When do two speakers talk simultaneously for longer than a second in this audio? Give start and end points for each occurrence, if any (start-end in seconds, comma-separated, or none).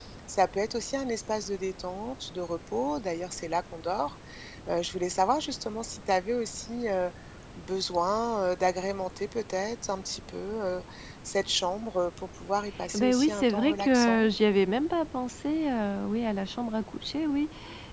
12.9-14.3